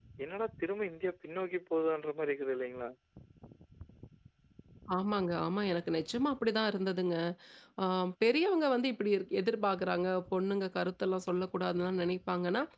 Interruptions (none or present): none